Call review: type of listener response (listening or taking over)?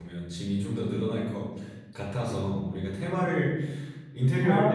listening